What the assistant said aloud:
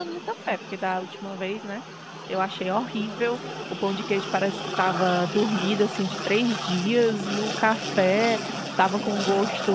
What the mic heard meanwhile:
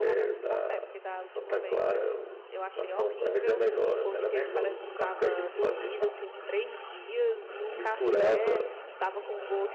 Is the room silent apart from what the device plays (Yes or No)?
No